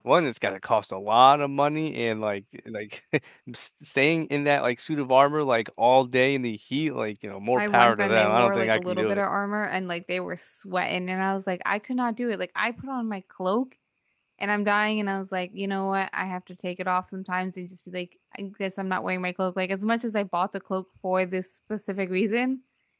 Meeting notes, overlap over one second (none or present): present